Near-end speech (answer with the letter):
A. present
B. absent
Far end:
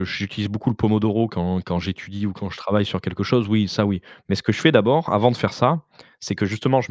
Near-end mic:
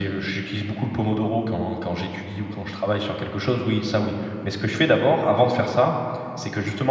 B